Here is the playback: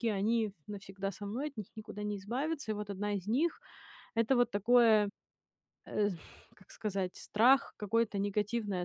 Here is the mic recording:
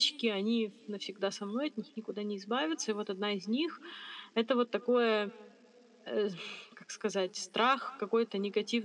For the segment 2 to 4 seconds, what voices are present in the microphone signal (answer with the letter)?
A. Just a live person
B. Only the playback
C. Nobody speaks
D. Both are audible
B